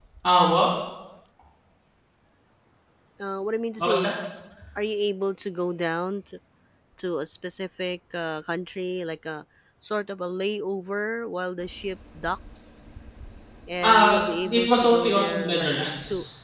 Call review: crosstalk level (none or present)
present